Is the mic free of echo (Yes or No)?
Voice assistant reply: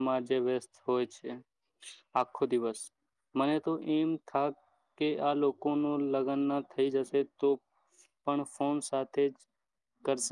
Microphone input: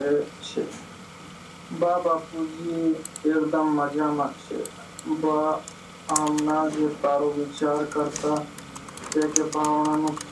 Yes